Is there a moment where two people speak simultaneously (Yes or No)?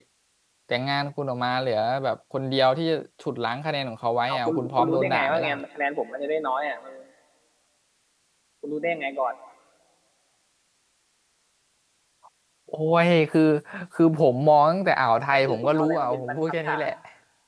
Yes